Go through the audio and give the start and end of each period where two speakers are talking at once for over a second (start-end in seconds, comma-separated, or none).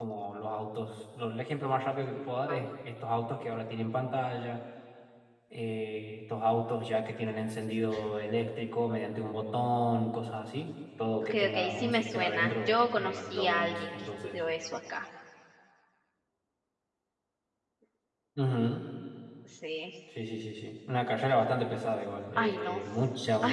11.2-14.4